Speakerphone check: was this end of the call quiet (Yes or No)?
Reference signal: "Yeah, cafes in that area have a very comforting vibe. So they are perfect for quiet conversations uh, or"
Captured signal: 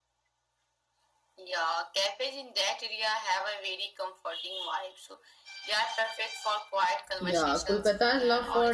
No